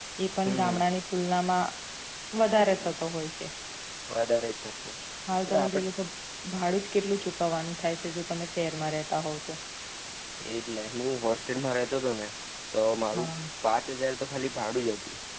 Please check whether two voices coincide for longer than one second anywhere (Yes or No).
No